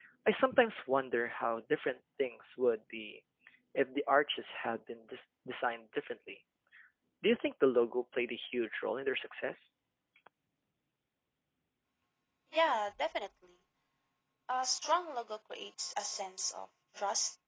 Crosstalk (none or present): none